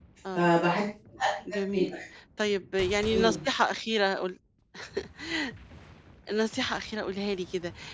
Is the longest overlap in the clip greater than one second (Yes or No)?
No